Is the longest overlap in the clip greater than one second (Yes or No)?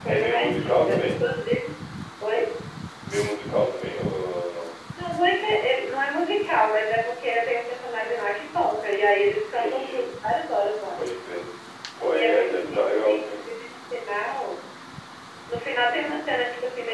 Yes